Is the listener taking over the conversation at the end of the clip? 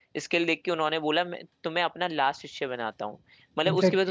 No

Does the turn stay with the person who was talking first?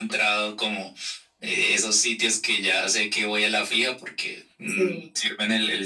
Yes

